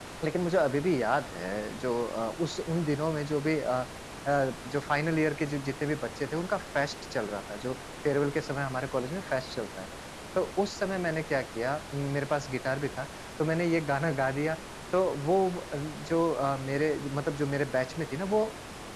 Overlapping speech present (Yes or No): No